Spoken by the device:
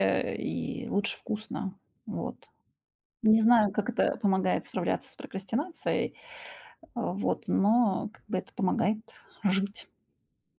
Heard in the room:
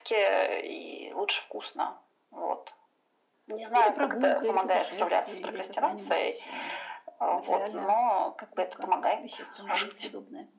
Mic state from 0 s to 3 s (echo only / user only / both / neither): echo only